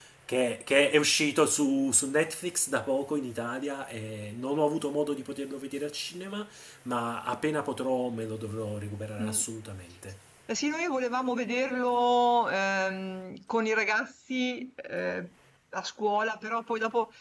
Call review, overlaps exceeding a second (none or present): none